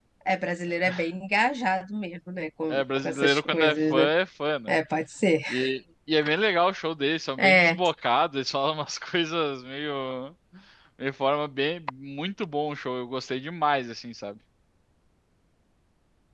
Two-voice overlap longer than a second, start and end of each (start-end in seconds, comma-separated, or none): 2.7-4.1